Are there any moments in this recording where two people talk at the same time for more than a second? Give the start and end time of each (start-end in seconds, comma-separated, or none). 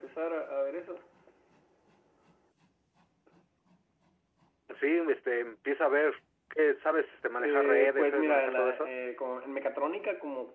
7.4-8.9